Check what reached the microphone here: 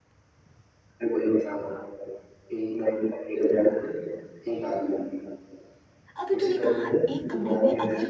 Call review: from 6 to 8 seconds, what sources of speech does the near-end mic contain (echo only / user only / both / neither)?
both